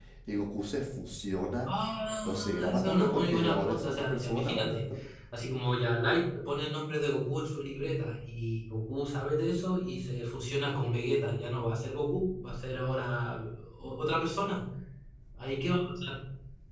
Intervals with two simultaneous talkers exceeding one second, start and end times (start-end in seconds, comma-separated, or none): 2.2-4.7